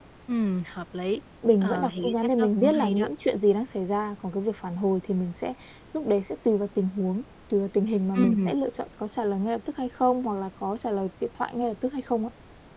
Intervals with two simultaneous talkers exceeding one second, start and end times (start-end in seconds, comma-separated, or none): 1.6-3.1